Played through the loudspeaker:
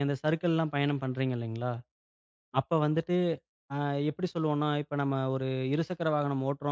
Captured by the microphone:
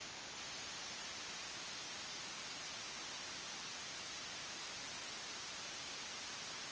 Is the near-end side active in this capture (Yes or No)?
No